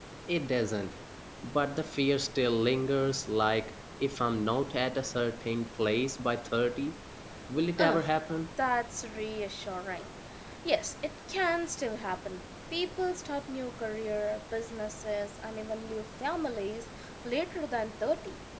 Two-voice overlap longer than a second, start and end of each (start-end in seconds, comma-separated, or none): none